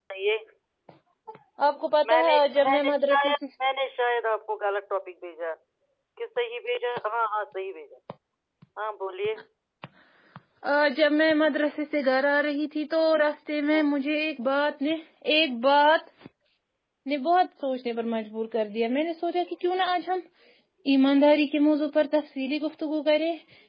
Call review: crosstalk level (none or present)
present